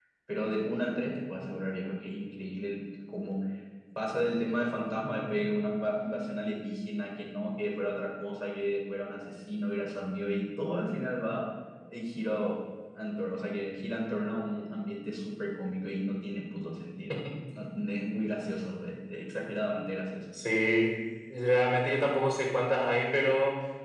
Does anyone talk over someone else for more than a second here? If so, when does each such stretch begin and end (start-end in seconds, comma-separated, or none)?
none